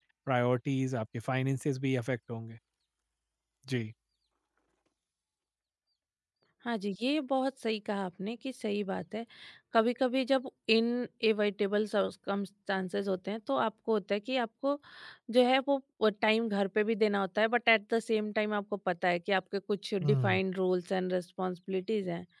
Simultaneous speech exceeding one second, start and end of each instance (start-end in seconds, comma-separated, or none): none